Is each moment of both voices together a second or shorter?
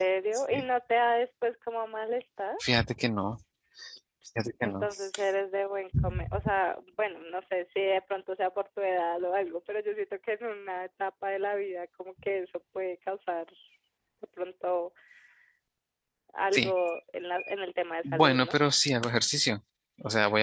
Yes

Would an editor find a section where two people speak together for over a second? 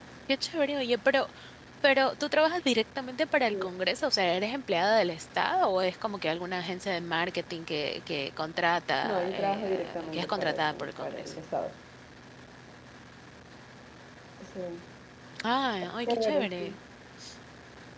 Yes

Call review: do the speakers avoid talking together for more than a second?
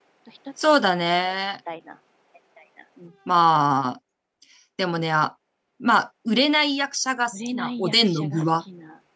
No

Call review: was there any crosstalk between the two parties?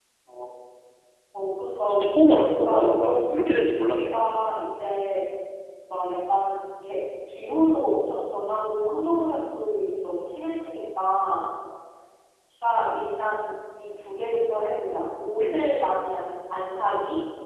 Yes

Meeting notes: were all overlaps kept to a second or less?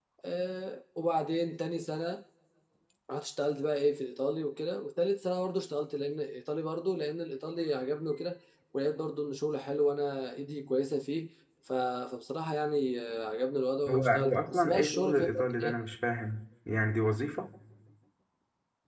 No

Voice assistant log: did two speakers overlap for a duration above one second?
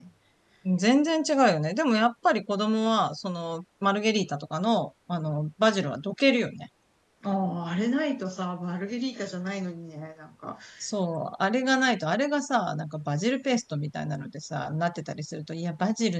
No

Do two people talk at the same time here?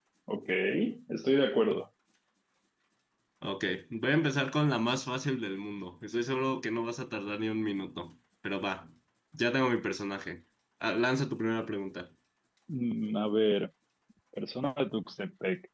No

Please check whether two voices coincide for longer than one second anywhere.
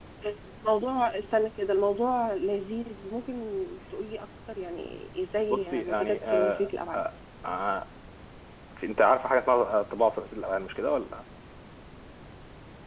Yes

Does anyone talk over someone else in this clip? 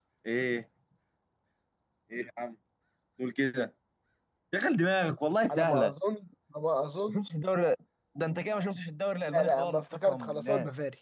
Yes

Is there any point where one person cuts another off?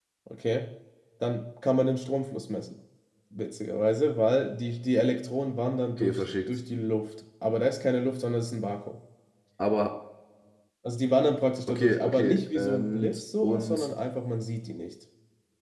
Yes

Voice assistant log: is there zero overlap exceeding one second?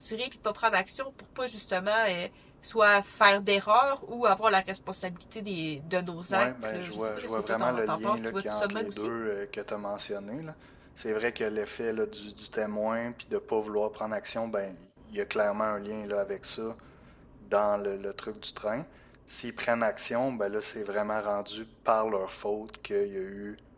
No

